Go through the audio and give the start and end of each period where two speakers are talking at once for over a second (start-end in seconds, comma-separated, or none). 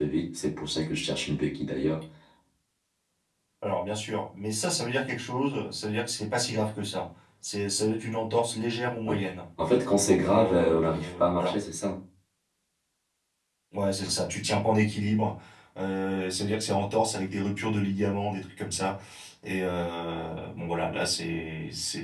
10.0-11.5